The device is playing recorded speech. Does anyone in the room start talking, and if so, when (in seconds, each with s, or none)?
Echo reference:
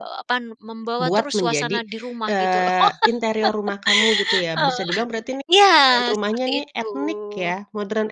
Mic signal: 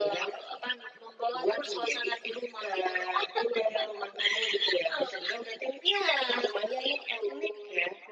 none